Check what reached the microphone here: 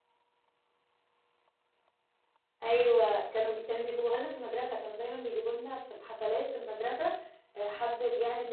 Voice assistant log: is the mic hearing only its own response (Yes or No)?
No